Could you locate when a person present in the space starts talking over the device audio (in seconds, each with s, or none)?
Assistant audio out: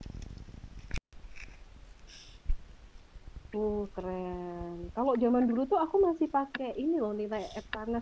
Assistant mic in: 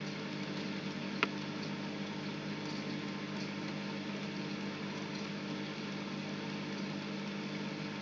none